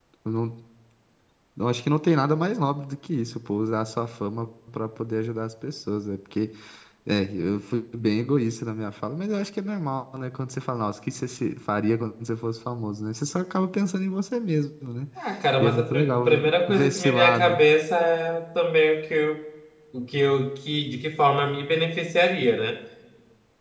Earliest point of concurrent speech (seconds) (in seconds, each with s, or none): 15.6 s